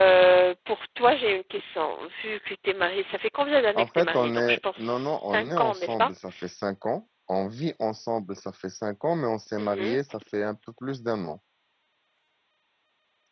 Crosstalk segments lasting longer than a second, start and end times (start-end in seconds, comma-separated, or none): 3.8-6.1